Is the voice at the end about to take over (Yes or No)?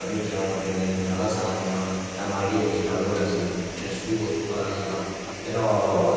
No